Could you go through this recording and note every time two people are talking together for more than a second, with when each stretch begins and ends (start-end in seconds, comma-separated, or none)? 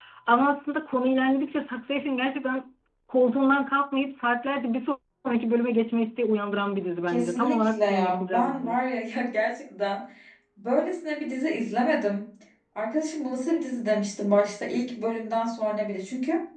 7.1-8.8